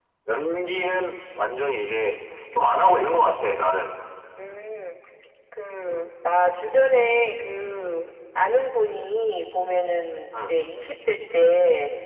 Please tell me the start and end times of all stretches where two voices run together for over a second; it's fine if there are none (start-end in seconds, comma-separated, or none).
none